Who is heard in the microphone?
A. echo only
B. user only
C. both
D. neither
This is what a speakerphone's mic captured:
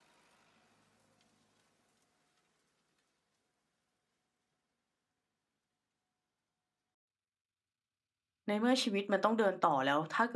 B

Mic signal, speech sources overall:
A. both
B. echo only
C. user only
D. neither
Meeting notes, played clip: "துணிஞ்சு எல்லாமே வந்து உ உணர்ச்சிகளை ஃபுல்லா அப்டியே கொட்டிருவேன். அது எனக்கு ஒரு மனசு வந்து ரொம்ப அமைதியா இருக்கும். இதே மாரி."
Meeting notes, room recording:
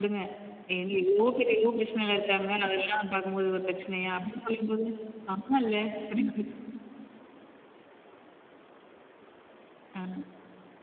C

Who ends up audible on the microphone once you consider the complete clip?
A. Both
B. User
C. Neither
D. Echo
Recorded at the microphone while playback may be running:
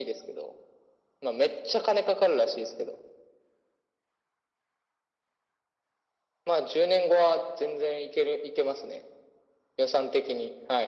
D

